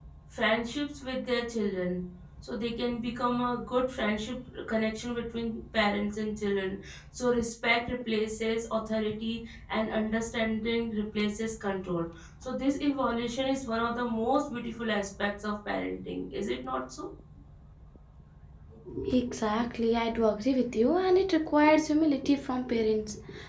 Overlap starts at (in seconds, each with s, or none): none